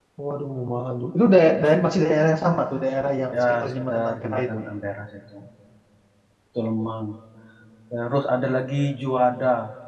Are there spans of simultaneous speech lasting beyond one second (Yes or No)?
Yes